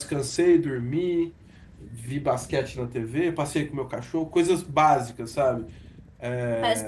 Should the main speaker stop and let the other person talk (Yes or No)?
Yes